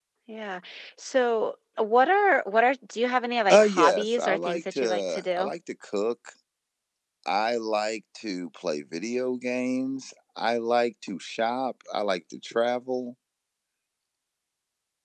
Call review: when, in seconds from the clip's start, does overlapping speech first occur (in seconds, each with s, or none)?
3.5 s